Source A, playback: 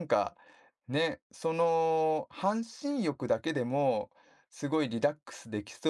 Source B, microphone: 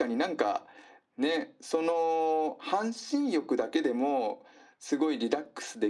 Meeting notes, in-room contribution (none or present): none